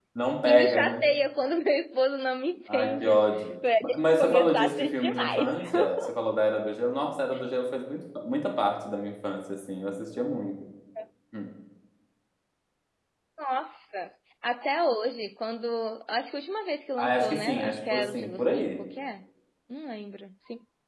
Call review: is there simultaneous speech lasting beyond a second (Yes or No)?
Yes